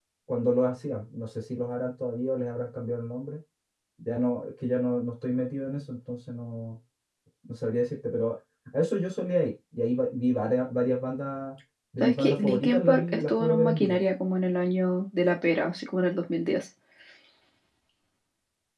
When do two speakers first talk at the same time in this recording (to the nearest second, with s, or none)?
12 s